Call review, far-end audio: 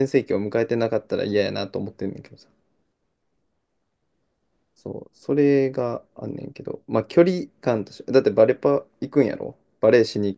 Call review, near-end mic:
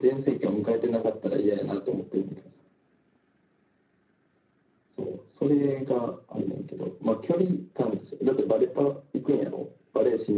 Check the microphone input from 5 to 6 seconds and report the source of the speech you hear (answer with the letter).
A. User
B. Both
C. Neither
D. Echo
D